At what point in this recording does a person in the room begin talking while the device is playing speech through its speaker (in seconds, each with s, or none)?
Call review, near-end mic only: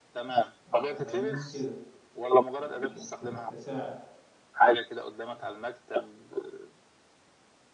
0.7 s